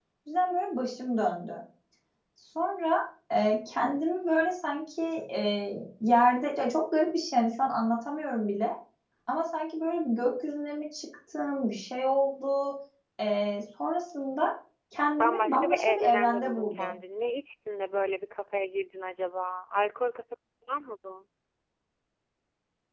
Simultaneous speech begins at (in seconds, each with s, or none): 15.2 s